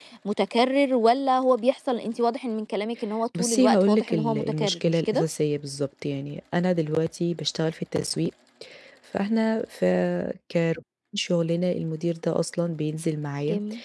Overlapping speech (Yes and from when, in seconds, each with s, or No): Yes, from 3.4 s